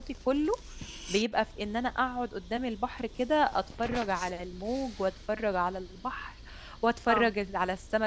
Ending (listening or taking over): listening